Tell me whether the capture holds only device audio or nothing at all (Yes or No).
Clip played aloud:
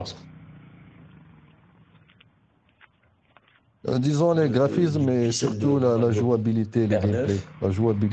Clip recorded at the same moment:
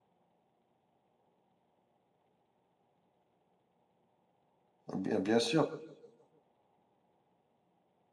No